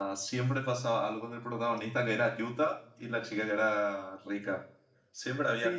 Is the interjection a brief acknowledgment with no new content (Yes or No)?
No